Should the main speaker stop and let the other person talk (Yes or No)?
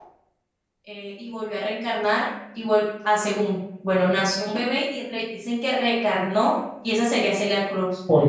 No